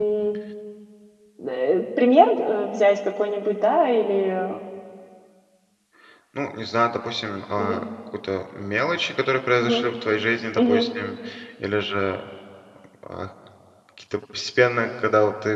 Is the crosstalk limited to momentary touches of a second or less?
Yes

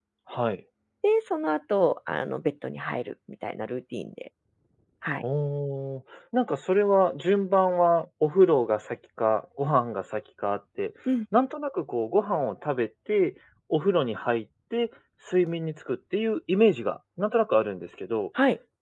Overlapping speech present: No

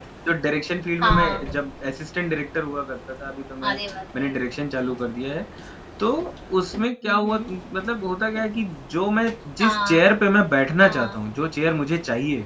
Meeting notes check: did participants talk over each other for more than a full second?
No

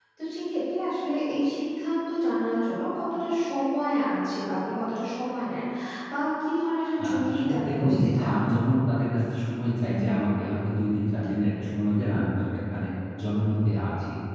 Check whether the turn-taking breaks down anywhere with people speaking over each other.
Yes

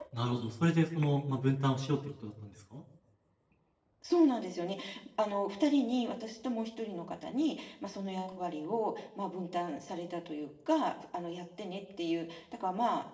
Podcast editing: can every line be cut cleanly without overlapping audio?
Yes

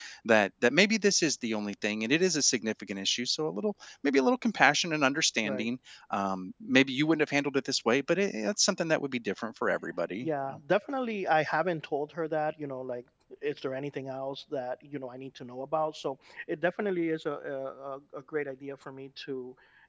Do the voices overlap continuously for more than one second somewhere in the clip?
No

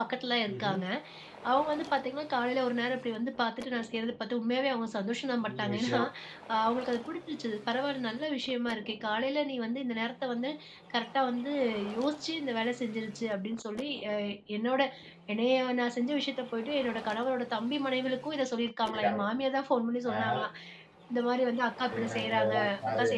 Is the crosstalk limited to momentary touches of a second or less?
No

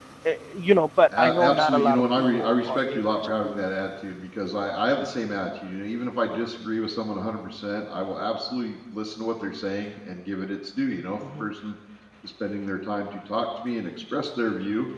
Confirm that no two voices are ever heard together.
No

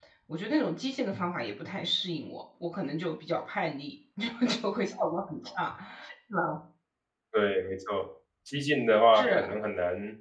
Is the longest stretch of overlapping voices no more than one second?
Yes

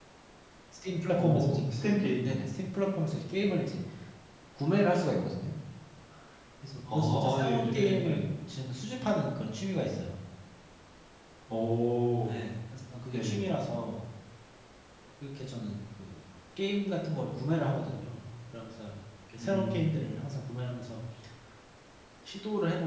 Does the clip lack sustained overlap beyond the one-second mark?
No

